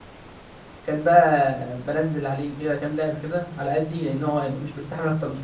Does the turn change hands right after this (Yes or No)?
Yes